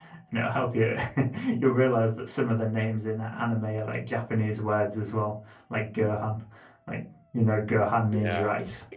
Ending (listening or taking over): taking over